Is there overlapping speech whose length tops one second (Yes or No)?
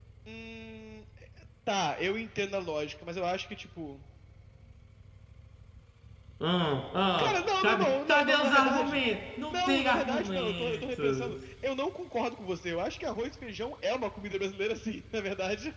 Yes